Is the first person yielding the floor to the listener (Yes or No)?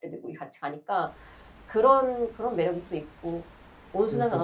No